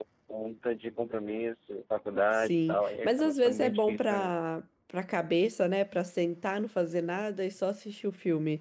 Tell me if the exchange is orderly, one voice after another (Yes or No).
No